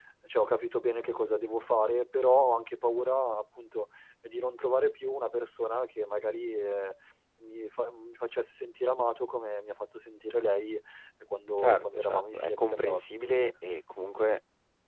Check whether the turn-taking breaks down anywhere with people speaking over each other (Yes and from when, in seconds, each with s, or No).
Yes, from 11.6 s